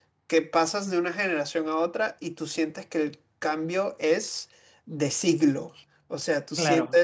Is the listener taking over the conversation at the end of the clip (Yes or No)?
No